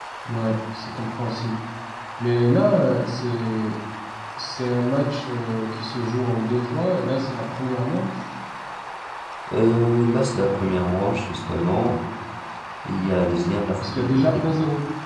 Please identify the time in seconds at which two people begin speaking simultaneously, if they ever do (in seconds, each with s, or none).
none